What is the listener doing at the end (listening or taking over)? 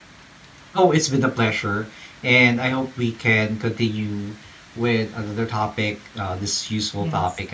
listening